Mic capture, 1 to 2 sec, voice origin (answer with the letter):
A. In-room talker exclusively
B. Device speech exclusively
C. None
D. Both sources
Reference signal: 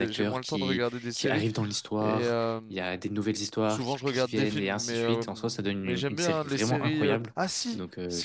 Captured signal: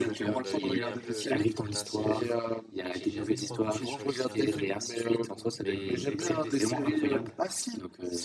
D